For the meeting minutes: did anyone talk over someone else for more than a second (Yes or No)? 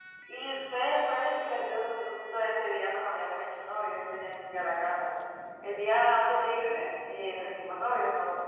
No